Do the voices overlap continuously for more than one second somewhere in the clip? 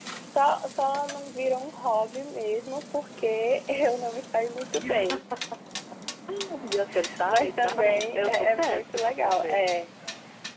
Yes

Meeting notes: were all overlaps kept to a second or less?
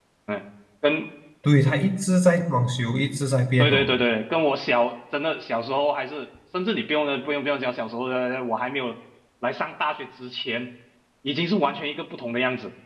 Yes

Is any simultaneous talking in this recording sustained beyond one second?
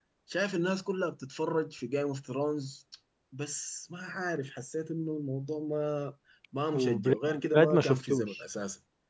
Yes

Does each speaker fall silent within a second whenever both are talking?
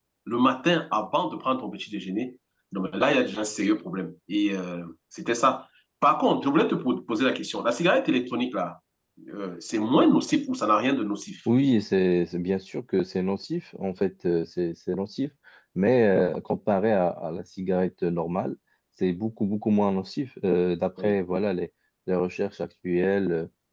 Yes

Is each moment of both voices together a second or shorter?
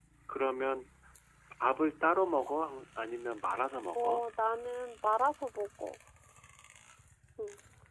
Yes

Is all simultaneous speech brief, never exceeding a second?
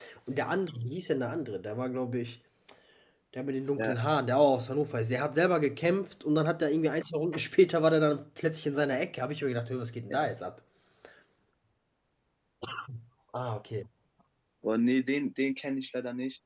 Yes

